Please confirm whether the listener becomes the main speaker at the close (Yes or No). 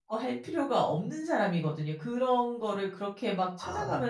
No